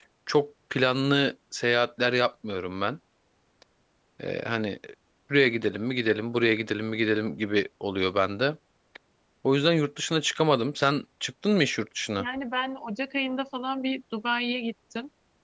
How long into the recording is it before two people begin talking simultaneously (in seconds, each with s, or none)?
none